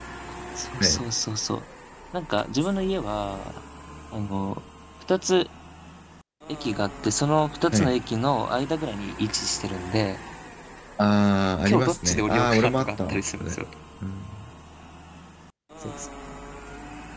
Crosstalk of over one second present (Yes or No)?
Yes